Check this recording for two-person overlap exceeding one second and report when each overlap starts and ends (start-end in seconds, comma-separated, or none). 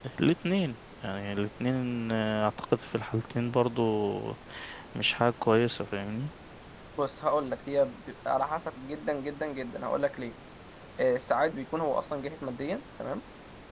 none